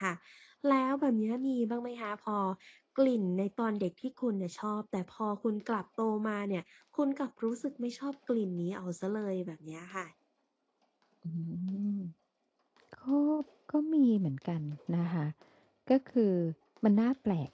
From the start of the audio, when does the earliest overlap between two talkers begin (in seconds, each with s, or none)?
none